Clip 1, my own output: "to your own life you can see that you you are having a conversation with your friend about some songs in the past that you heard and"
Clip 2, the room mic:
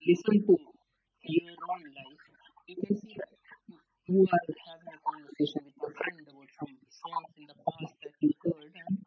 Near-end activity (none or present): none